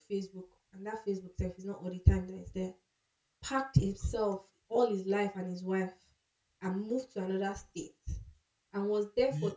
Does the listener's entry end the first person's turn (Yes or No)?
No